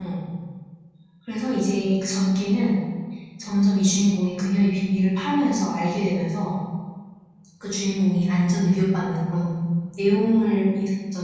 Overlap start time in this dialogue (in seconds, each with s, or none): none